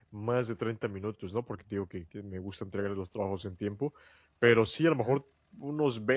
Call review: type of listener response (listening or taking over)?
listening